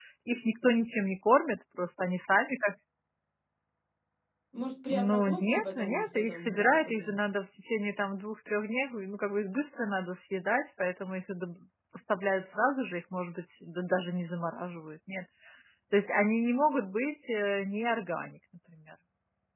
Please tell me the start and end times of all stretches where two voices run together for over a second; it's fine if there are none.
4.9-7.2

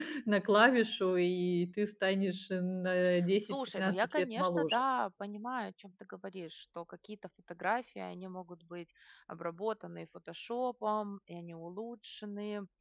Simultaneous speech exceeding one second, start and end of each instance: 3.5-4.8

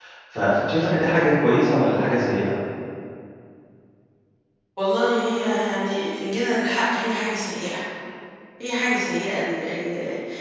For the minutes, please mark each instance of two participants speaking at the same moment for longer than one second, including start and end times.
none

